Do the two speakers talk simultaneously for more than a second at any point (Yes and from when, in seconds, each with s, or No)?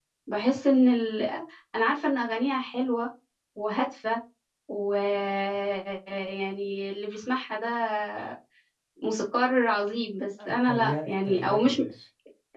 Yes, from 10.4 s